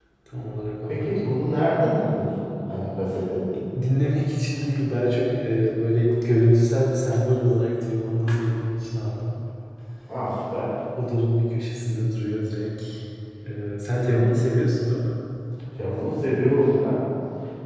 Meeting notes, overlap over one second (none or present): none